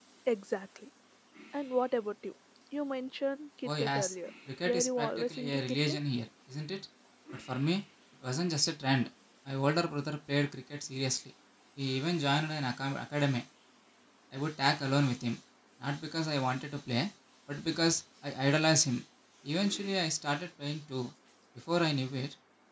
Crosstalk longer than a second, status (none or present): present